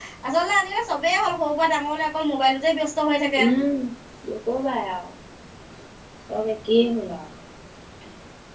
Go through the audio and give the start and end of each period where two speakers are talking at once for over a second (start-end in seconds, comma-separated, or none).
none